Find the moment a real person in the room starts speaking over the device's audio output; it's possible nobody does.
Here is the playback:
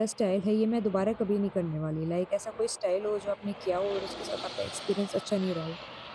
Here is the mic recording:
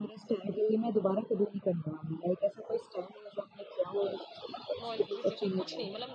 5 s

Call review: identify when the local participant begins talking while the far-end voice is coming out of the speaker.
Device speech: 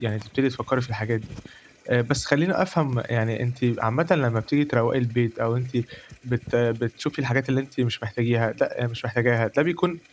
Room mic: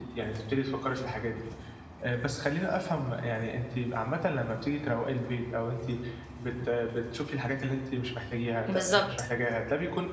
9 s

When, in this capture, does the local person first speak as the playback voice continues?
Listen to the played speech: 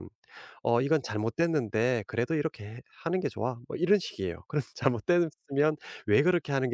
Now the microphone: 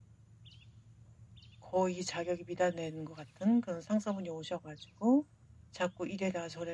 2 s

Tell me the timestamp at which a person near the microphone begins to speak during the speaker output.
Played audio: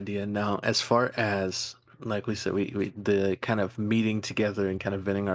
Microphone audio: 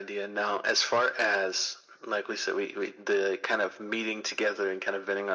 none

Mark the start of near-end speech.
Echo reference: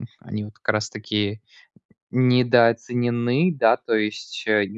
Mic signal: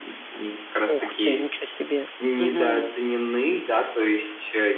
1 s

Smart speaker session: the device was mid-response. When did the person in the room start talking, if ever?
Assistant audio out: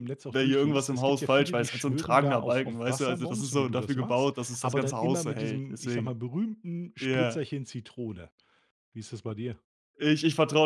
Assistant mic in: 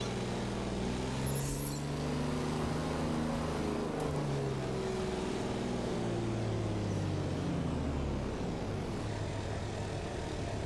none

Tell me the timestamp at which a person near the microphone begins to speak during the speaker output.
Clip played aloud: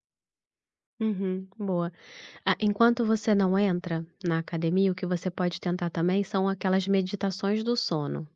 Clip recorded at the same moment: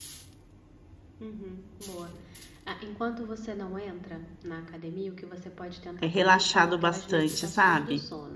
6 s

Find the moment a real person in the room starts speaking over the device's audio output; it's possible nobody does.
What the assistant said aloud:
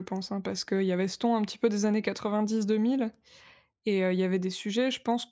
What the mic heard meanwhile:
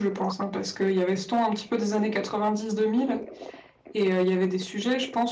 none

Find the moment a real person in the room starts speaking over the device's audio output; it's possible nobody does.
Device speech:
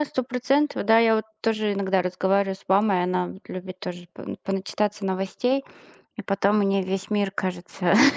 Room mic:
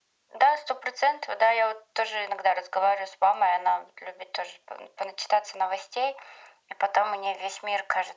none

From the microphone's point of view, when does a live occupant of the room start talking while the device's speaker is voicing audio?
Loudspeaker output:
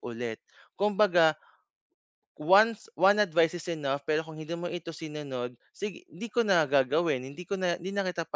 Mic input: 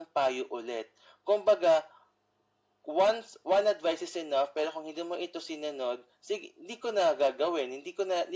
none

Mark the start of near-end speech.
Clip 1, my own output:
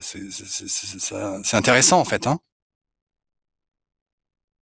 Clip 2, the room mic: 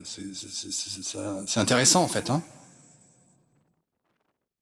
none

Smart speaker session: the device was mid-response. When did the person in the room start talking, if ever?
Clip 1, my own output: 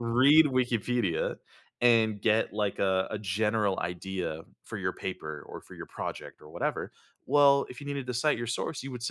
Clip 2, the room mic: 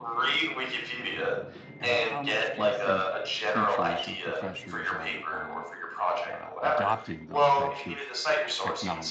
2 s

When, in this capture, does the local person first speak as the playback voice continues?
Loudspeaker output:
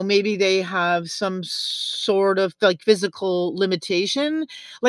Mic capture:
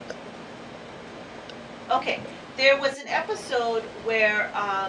2 s

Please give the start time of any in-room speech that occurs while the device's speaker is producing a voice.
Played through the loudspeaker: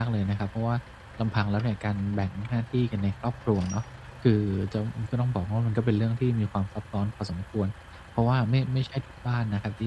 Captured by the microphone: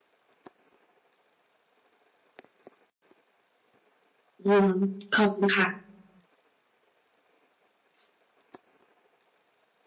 4 s

